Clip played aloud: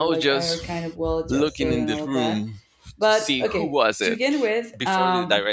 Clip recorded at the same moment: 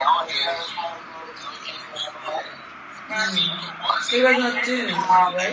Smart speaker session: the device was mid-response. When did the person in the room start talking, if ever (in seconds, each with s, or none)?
3.1 s